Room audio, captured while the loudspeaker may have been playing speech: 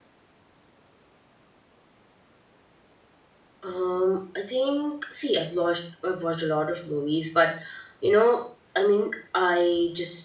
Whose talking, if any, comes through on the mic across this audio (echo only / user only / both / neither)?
user only